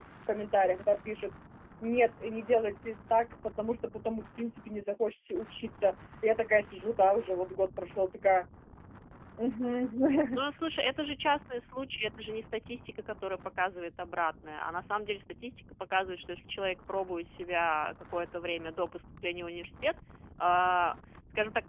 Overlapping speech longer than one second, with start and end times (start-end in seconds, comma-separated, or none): none